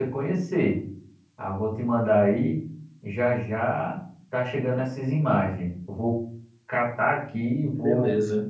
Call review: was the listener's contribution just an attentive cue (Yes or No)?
Yes